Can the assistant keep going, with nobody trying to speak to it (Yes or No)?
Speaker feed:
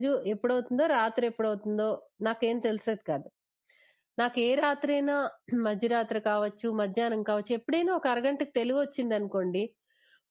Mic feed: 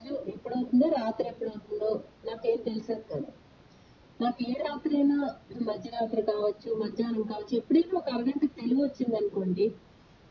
Yes